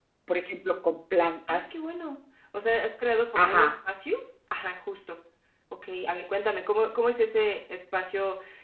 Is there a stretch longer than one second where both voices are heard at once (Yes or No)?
No